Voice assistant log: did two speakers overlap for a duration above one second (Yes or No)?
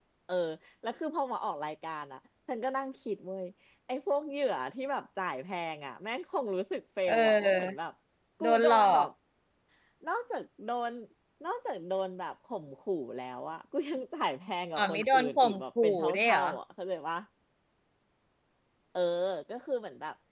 Yes